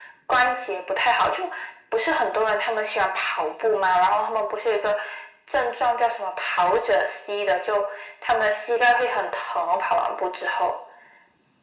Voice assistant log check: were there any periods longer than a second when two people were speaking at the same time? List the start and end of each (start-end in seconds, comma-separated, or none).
none